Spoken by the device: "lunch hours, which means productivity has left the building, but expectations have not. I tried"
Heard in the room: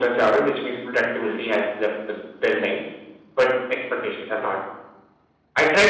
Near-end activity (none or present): none